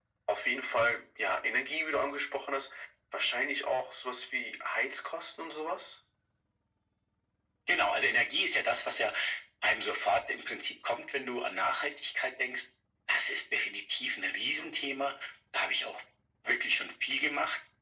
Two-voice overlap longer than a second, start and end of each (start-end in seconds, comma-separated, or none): none